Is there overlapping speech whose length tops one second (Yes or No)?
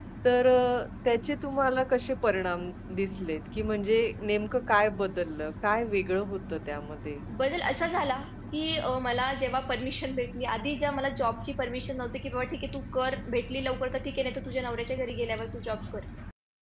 No